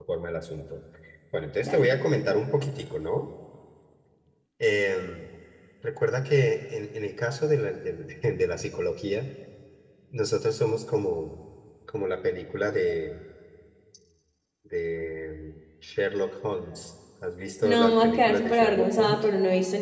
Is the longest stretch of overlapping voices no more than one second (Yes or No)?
No